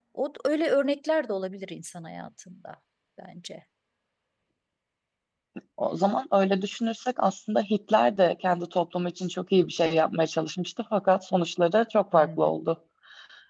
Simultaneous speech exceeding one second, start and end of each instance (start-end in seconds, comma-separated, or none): none